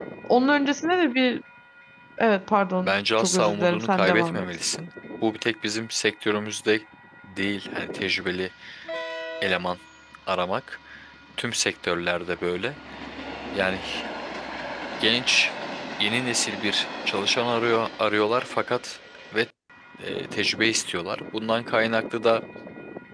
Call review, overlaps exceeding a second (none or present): present